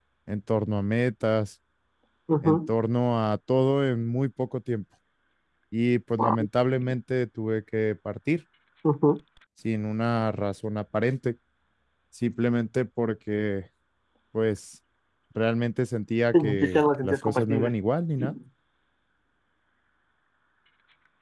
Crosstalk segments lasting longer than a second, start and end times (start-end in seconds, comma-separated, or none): 16.3-17.7